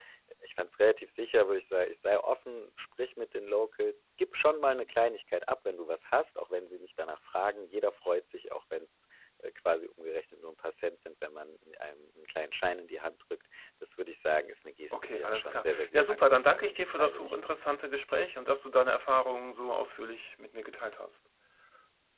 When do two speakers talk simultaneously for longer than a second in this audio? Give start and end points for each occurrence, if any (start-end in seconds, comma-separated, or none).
14.9-17.5